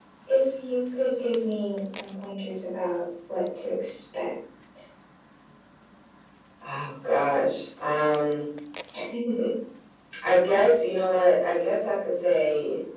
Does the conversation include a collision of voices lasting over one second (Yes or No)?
No